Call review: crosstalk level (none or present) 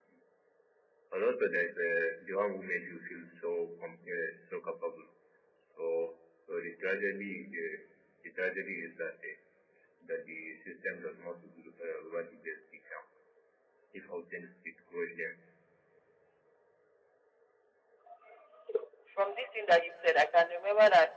none